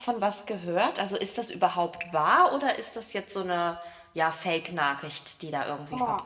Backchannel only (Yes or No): No